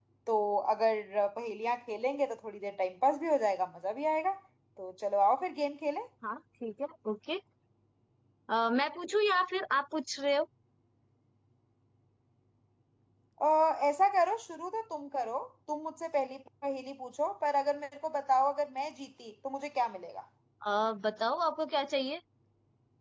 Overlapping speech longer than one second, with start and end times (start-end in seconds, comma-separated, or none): none